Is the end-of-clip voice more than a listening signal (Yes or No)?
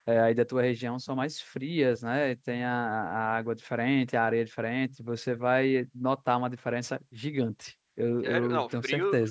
Yes